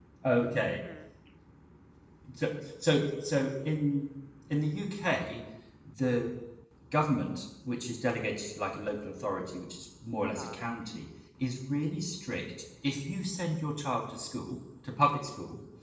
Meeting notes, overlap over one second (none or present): none